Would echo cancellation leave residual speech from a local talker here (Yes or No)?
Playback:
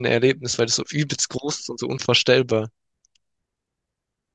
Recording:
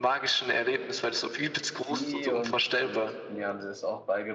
Yes